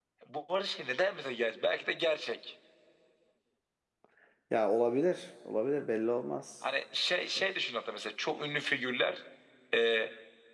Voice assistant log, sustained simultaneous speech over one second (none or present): none